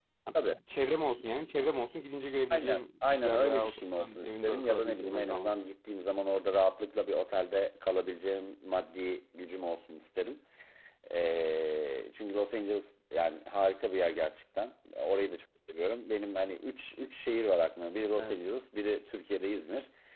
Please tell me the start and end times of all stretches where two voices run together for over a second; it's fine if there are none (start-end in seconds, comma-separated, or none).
2.5-5.6